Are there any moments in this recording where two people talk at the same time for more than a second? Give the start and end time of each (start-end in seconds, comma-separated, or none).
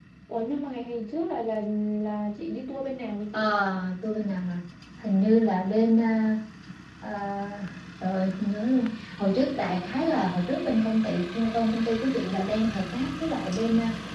none